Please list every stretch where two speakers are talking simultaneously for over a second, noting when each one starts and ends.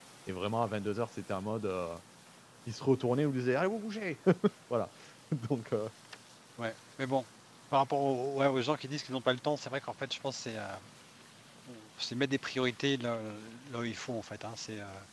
none

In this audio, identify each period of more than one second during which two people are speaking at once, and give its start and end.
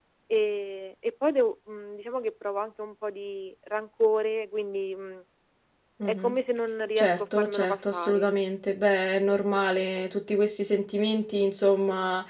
7.0-8.3

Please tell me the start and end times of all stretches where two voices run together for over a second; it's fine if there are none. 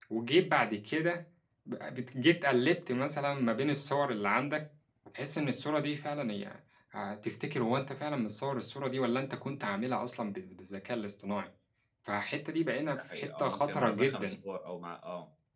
13.0-14.3

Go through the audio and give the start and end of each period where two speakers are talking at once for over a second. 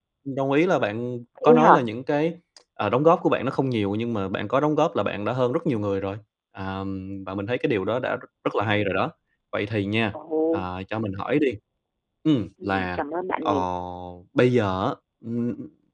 none

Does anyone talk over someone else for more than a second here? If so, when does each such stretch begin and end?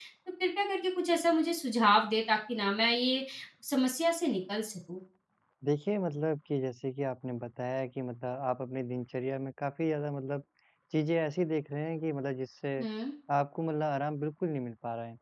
none

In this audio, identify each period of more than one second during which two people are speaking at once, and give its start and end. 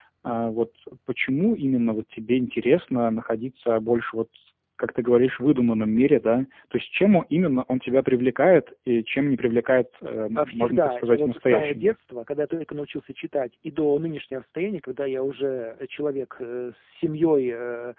10.4-11.9

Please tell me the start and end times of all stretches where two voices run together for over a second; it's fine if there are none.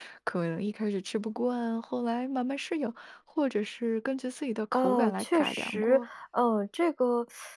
4.7-6.1

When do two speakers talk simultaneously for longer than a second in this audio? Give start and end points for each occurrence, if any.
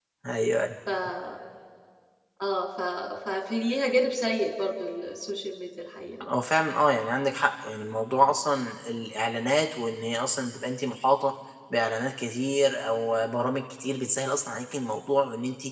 none

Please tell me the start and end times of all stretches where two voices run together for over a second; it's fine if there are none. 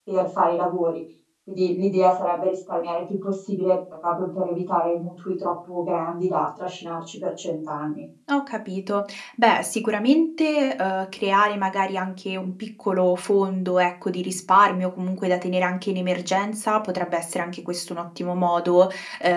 none

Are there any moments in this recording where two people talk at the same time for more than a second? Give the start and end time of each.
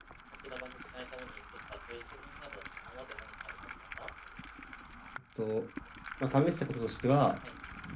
none

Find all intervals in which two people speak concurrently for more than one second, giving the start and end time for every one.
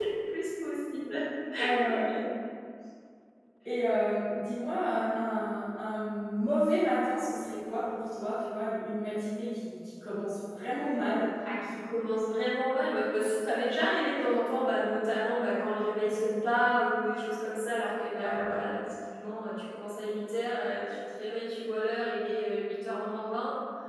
none

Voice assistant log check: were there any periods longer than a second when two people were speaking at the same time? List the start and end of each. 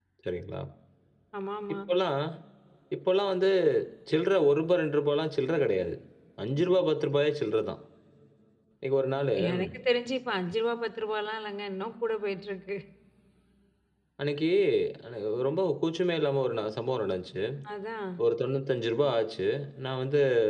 none

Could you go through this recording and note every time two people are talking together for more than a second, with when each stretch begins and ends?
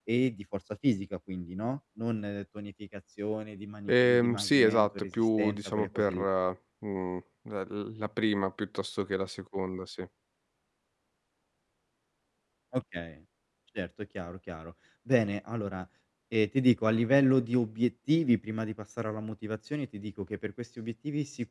3.9-6.1

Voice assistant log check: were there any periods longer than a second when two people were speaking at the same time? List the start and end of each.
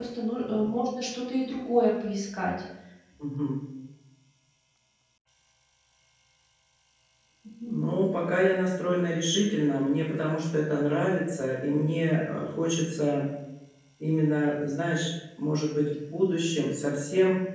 none

